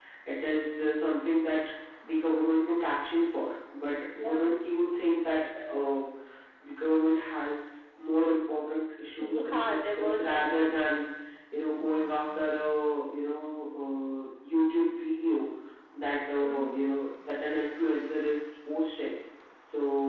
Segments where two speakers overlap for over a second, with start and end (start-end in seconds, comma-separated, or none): 9.2-10.4